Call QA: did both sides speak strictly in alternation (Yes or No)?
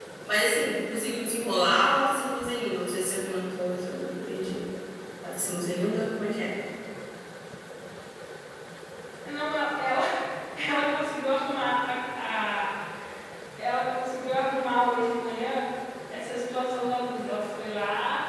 Yes